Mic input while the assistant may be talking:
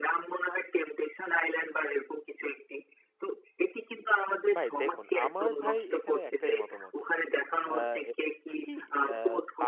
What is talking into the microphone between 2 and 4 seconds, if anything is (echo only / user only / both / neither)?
echo only